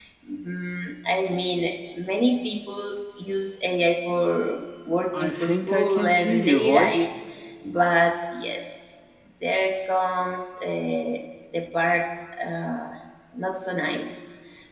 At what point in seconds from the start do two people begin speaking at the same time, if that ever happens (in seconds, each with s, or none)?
5.1 s